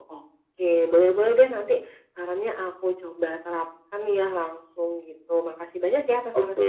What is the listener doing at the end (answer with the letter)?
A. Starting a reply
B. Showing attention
A